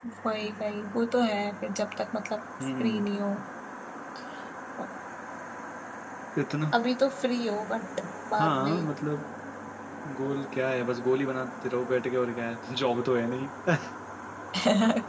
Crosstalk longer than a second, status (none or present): none